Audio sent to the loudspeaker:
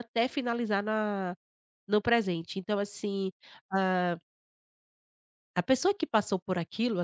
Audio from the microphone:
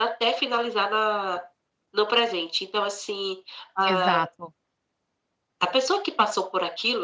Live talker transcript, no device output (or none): Exato.